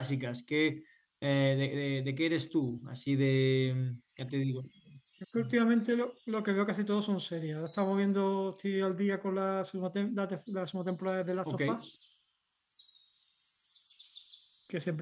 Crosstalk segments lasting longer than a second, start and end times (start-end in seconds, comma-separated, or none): none